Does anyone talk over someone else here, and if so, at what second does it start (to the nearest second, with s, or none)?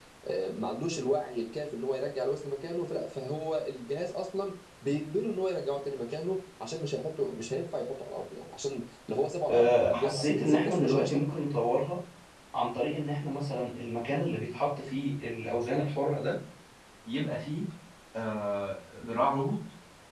9 s